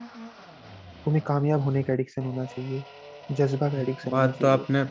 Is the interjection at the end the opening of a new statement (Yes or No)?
Yes